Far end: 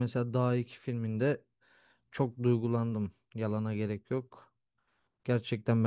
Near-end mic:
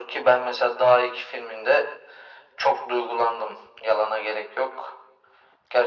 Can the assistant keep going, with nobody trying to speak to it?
Yes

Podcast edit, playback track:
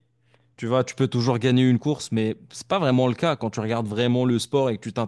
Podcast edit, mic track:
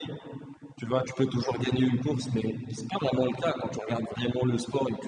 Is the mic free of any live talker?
Yes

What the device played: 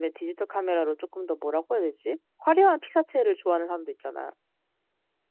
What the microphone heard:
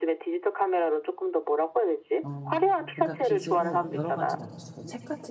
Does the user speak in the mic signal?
Yes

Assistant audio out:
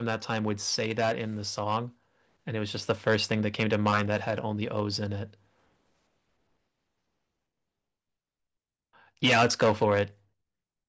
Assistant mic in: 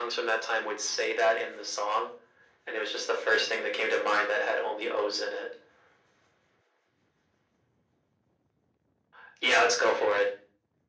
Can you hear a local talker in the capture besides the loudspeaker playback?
No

